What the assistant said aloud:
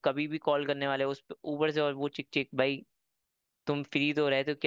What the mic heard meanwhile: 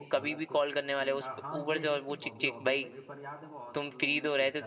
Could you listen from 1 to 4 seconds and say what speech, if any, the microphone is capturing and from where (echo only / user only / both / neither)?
both